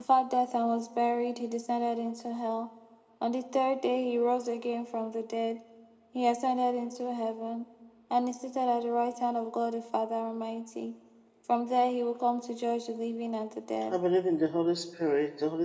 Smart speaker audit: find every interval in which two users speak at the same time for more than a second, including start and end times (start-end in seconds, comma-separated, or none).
none